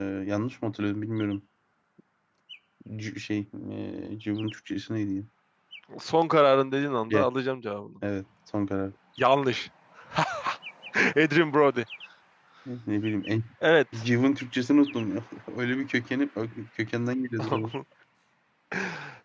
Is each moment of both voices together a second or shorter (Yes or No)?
Yes